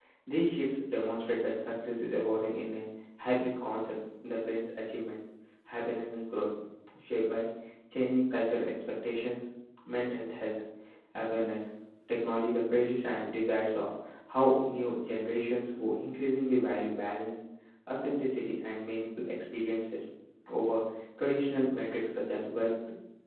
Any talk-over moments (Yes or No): No